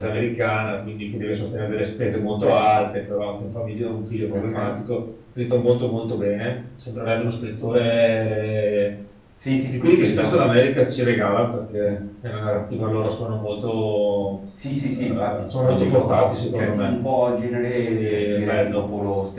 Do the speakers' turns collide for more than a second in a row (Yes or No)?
Yes